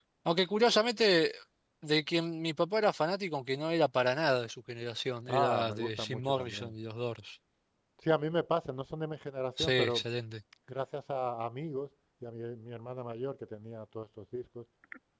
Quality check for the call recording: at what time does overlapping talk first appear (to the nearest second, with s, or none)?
5 s